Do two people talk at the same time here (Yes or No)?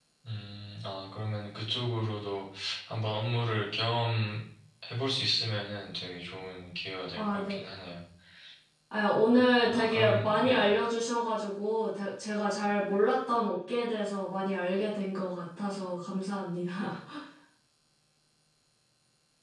Yes